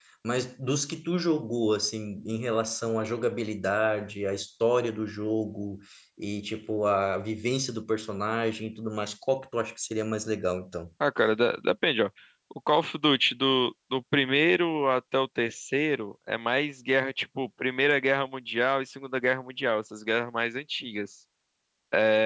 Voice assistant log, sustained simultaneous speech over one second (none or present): none